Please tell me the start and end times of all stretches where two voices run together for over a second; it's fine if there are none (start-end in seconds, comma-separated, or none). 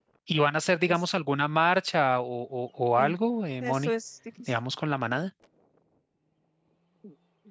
none